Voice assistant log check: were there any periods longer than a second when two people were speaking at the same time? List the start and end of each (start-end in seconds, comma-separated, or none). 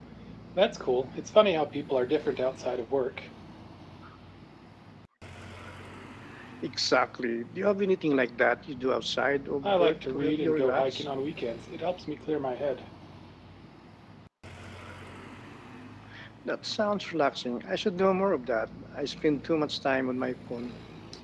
9.6-11.1